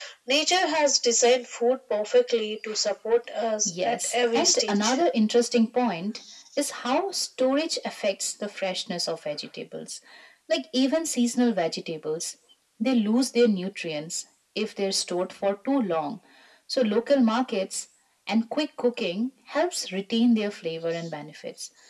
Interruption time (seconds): 3.6 s

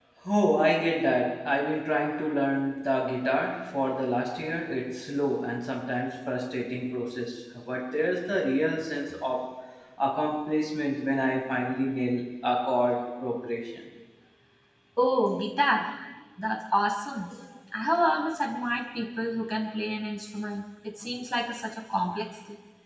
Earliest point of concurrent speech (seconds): none

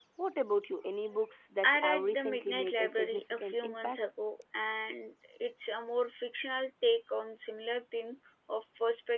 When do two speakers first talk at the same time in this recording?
1.6 s

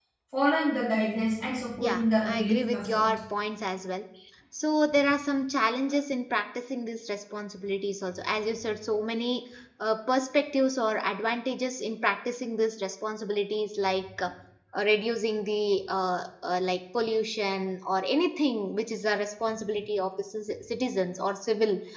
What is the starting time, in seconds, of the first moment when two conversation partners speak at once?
1.8 s

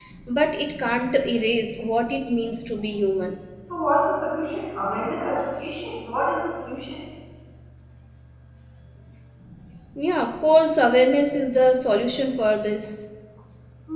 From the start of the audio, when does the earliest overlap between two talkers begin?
none

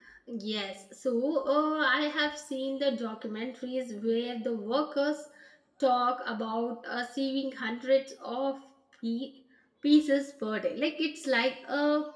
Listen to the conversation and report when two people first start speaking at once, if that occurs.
none

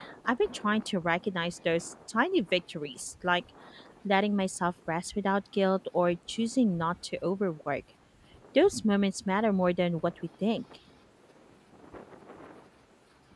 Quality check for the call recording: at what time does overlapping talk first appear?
none

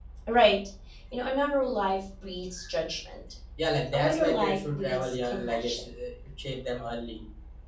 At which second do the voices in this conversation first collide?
3.9 s

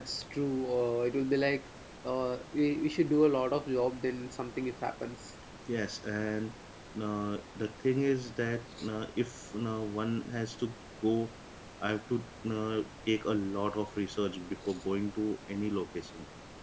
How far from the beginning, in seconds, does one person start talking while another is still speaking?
none

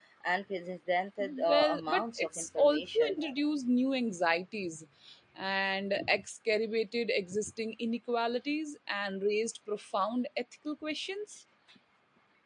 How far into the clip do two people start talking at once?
1.2 s

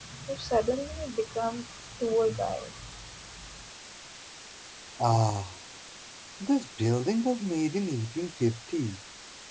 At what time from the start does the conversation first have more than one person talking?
none

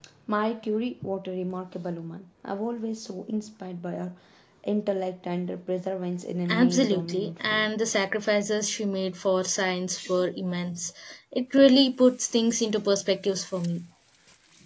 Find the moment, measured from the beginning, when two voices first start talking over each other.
6.5 s

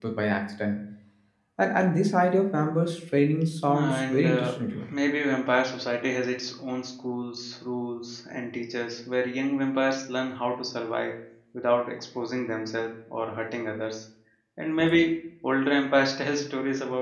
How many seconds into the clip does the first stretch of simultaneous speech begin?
3.7 s

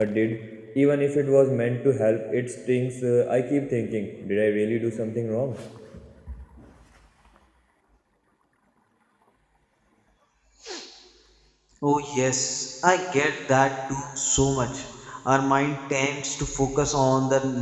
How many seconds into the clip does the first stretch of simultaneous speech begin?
none

